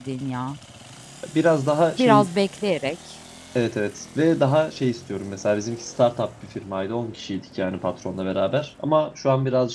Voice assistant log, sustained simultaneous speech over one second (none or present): none